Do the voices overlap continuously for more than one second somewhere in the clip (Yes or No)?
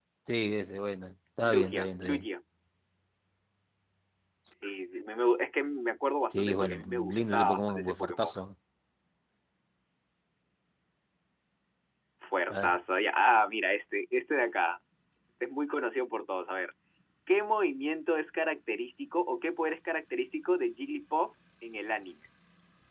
Yes